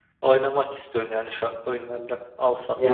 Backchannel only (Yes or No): No